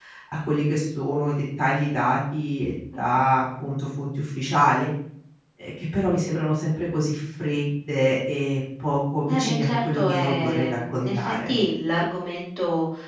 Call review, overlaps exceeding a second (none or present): present